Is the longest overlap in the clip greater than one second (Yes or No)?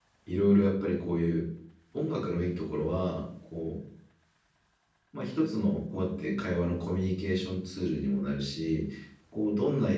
No